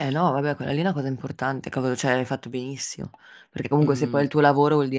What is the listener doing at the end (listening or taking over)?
listening